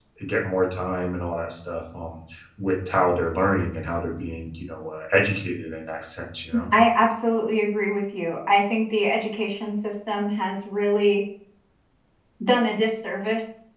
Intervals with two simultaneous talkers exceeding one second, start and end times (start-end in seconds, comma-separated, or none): none